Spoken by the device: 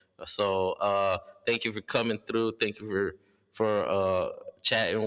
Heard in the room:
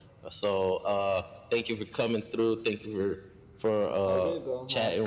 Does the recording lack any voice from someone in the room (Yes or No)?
No